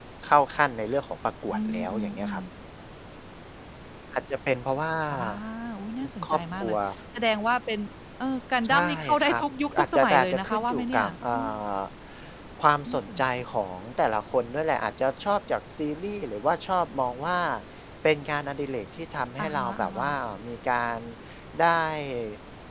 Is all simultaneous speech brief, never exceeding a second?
No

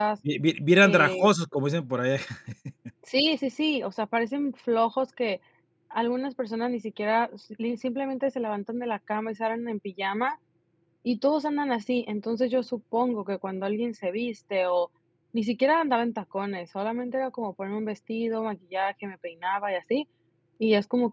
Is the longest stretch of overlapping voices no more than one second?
Yes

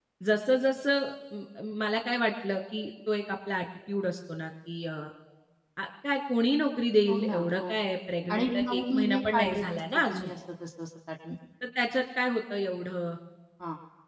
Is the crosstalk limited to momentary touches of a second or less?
No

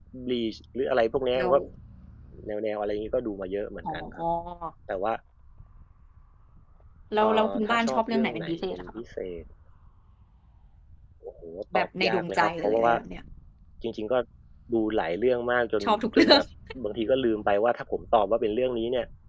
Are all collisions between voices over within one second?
No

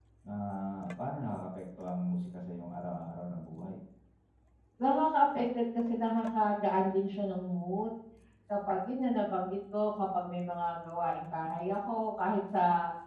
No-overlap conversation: Yes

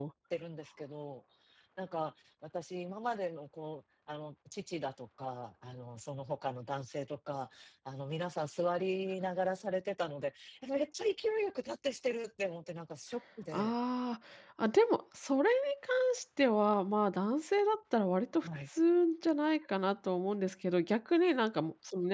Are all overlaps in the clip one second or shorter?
Yes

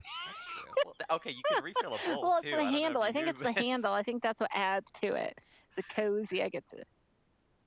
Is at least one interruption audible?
Yes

